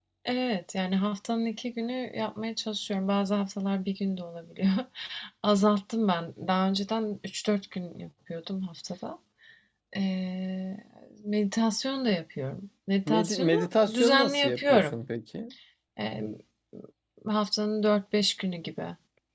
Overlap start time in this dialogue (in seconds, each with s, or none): 13.1 s